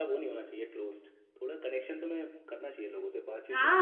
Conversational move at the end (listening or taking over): taking over